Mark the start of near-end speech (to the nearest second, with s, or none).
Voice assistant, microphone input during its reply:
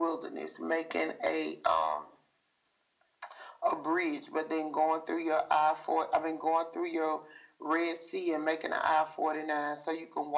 none